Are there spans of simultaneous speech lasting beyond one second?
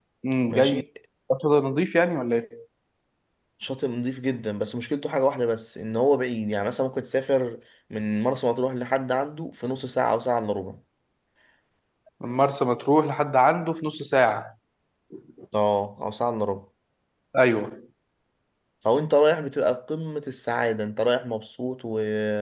No

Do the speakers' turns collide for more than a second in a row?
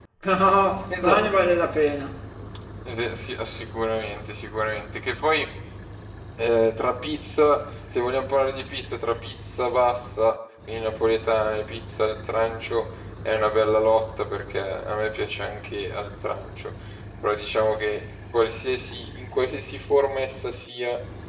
No

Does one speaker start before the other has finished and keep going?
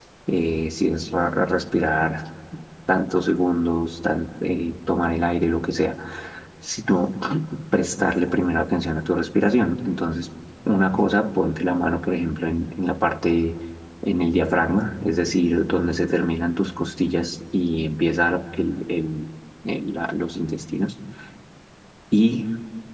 No

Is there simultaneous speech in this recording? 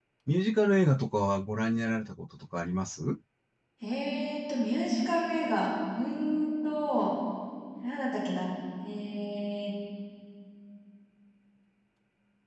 No

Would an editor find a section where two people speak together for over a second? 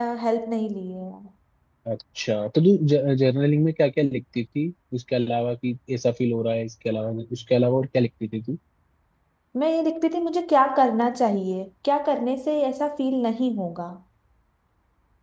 No

